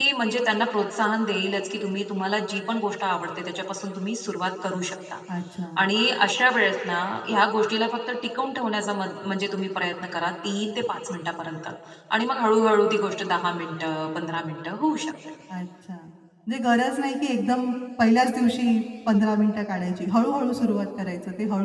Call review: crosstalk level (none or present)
none